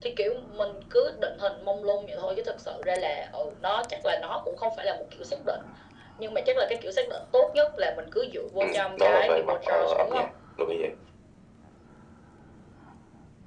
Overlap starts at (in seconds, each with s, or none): 8.6 s